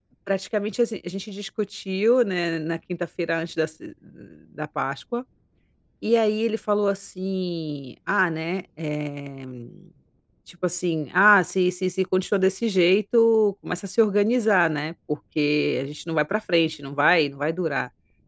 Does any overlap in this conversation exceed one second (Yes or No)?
No